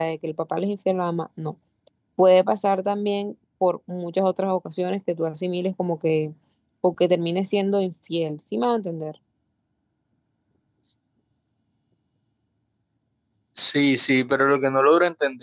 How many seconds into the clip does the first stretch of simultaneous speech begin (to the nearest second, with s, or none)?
none